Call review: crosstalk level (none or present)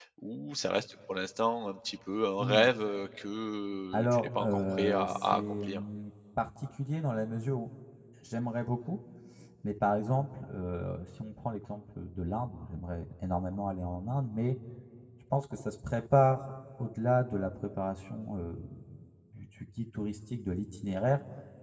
present